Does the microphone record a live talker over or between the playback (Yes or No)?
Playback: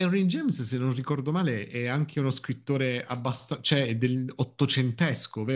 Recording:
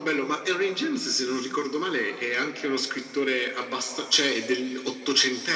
No